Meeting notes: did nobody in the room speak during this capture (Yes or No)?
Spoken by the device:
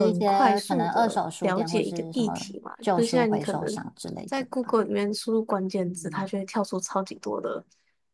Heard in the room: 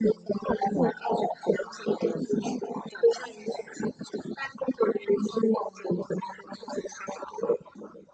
Yes